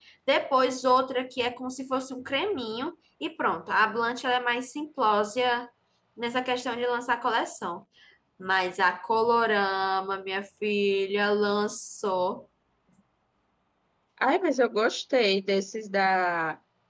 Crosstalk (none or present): none